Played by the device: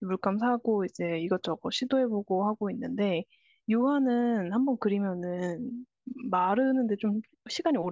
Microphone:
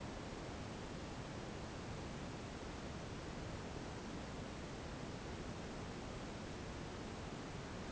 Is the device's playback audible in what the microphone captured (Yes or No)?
No